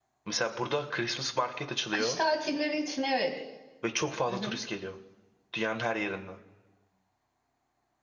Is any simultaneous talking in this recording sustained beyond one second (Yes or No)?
No